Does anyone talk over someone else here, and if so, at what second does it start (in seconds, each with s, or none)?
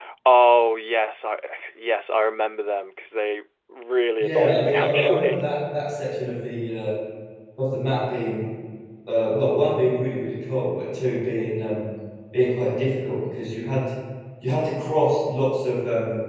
4.2 s